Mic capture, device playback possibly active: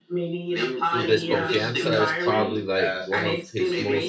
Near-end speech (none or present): present